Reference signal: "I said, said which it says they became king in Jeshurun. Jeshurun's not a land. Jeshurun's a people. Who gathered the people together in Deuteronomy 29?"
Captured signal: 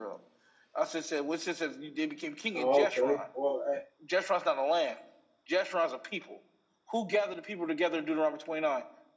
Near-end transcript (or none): Oh, okay. Well, eh,